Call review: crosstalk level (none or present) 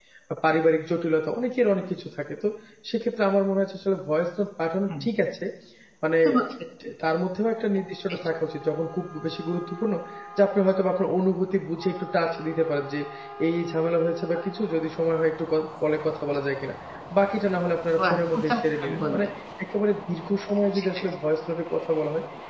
present